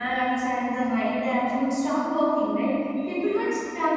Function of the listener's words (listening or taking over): listening